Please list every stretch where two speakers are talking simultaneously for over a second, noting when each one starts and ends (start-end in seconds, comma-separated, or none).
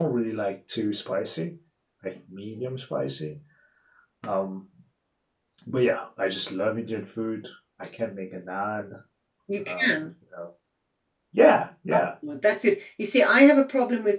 none